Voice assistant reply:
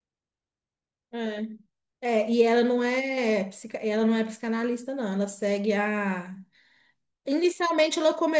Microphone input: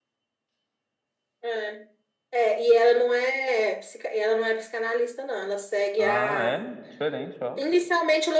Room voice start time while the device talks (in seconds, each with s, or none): 6.0 s